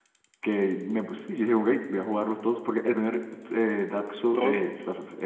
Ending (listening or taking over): listening